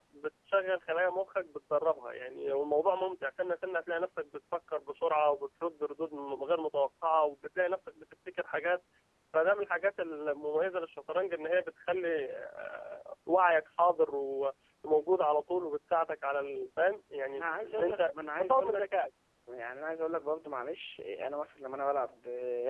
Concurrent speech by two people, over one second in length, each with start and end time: 17.4-18.8

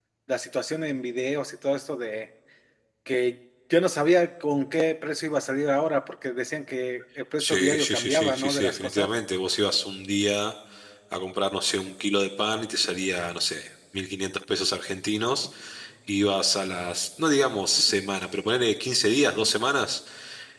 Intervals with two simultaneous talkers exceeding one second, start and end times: 7.4-9.1

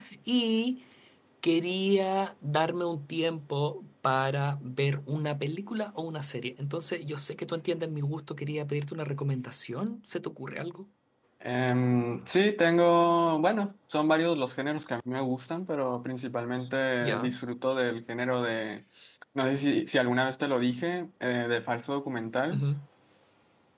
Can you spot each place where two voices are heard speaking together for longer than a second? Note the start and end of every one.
none

